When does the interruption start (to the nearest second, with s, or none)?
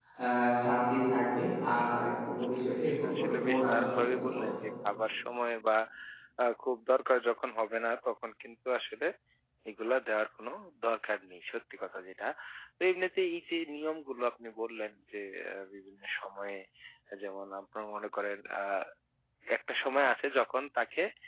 3 s